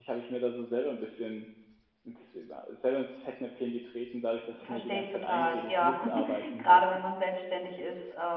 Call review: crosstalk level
present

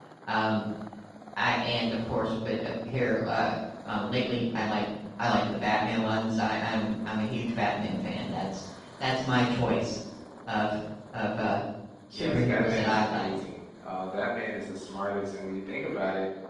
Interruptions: present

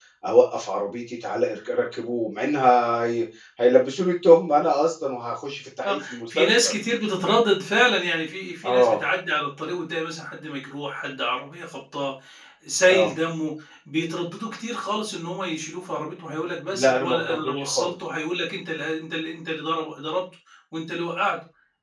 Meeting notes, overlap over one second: present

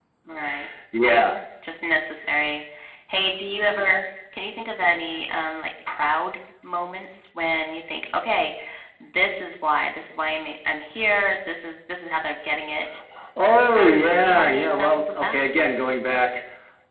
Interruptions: present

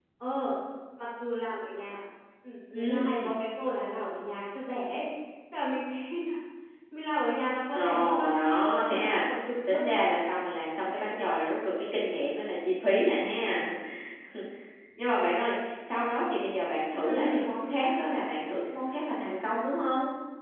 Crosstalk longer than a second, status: present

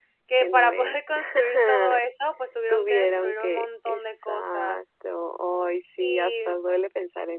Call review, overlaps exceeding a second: present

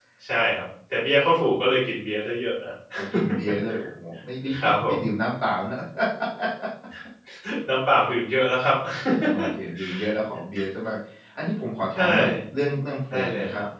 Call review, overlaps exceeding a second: none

